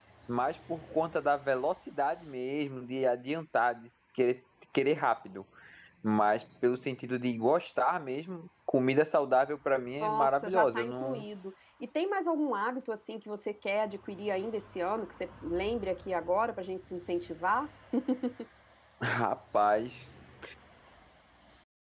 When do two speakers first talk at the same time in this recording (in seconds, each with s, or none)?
10.0 s